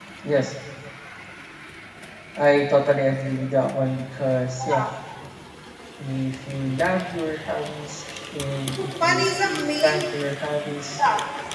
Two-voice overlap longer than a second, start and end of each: 8.8-10.1

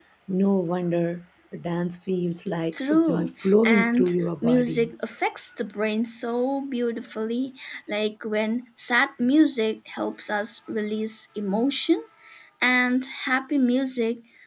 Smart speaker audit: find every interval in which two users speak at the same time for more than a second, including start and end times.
2.9-4.9

